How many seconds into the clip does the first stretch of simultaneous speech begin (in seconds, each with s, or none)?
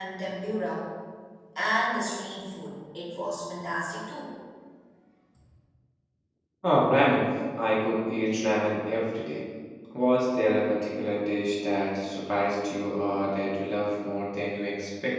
none